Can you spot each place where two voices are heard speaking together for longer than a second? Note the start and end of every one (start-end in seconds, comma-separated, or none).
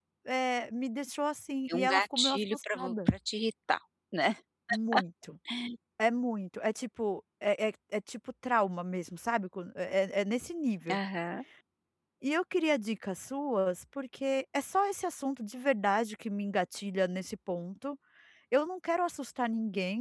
1.7-3.1